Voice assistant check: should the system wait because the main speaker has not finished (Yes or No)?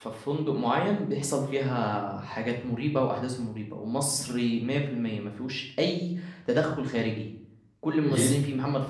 Yes